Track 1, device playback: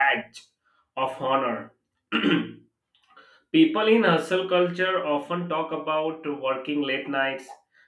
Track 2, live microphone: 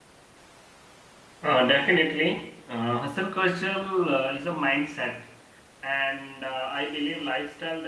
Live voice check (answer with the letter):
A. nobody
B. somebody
B